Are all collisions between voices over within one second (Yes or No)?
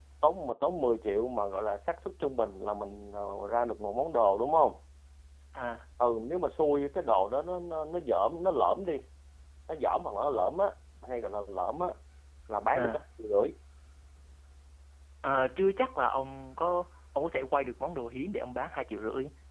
Yes